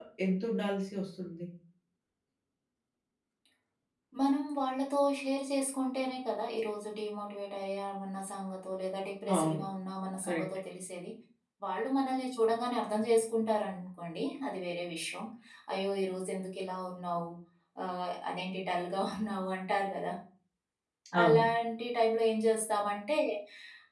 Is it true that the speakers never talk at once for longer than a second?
Yes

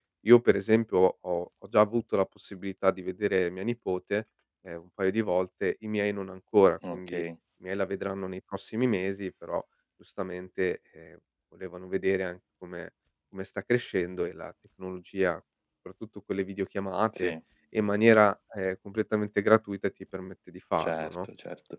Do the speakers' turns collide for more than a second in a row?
No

